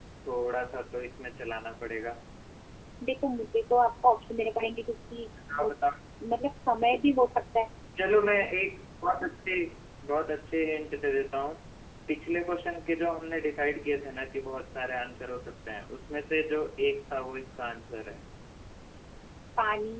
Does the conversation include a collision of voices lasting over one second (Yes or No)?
No